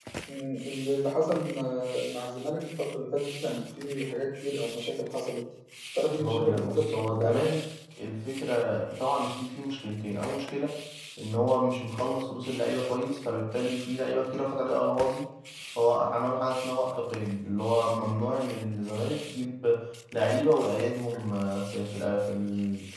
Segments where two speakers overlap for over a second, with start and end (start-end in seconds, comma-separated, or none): 6.1-7.5